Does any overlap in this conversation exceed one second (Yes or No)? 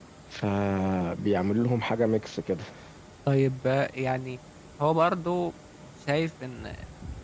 No